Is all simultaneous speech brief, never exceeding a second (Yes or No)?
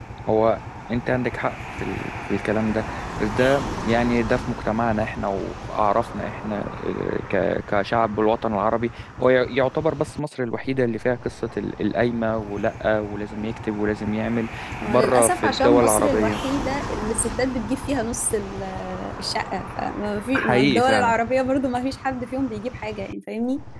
No